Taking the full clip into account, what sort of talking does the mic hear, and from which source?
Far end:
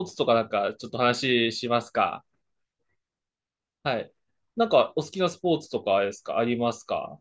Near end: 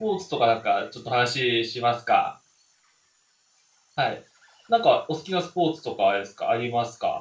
echo only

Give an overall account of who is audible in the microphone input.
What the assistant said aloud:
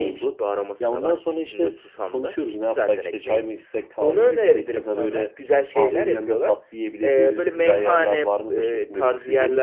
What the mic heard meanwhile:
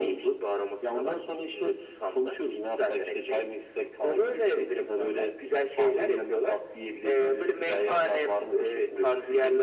echo only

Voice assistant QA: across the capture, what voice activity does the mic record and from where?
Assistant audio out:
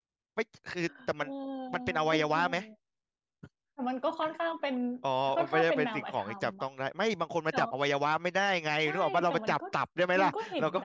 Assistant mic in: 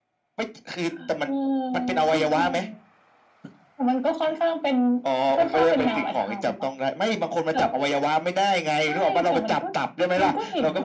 both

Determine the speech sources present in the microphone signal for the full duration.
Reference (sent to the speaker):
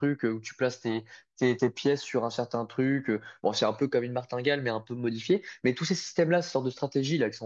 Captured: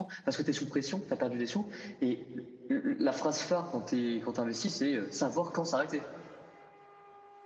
user only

